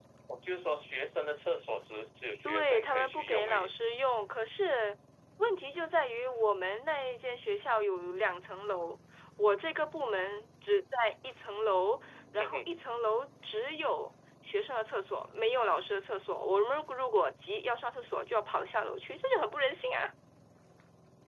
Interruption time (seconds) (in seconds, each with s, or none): 2.5 s